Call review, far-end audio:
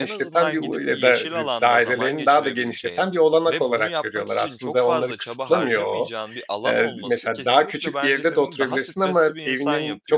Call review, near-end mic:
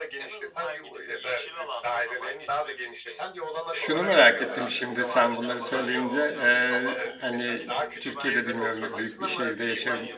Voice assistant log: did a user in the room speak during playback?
Yes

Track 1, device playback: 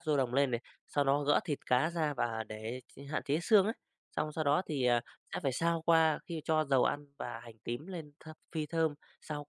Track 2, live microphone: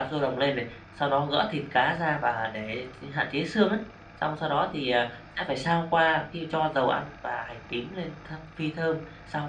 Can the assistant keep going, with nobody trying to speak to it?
Yes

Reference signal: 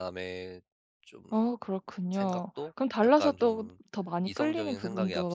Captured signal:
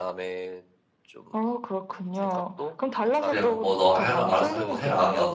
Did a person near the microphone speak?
Yes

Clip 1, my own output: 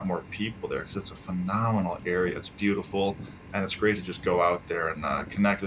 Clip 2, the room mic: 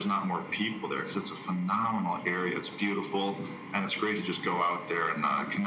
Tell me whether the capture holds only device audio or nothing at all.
Yes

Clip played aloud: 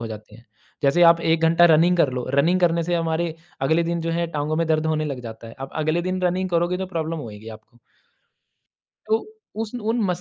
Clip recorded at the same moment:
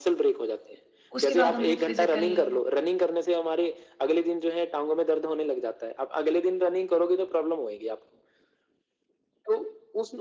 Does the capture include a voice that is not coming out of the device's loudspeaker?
Yes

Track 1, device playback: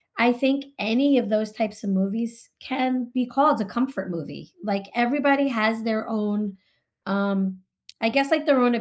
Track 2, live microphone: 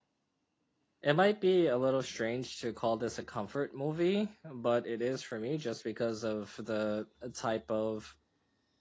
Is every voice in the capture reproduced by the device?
No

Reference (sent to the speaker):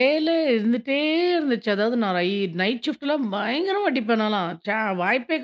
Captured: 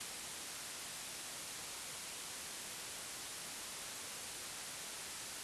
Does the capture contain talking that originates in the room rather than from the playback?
No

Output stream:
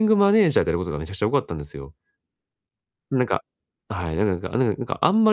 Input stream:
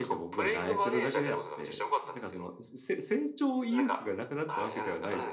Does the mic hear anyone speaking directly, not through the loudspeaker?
Yes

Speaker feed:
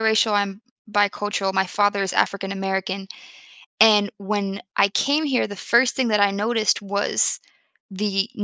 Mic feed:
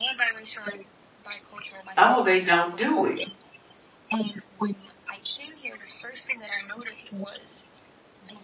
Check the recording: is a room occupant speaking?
Yes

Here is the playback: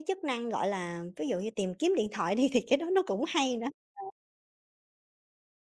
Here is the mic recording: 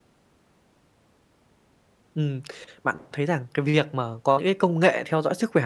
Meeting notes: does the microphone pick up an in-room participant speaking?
Yes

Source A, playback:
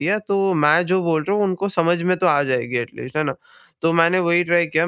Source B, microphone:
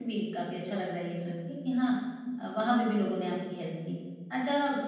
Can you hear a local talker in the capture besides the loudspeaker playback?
Yes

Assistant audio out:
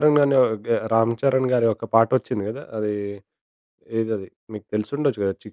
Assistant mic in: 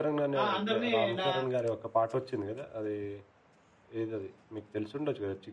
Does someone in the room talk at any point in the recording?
Yes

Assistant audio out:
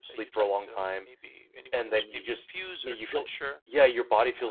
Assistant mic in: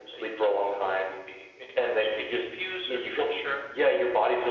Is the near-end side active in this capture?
No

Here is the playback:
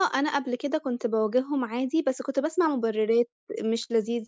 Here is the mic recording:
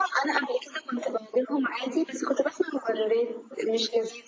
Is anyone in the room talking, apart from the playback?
No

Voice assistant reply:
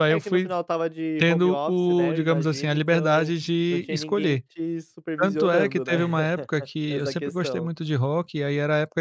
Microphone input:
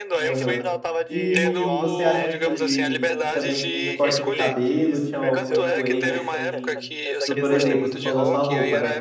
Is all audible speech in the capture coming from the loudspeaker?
No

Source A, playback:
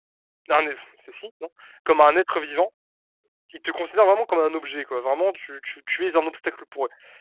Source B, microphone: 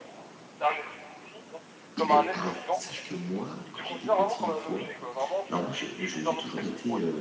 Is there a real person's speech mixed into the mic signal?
Yes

